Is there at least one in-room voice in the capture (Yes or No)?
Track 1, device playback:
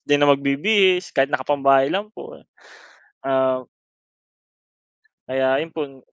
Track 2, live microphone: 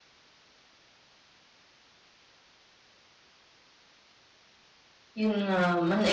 Yes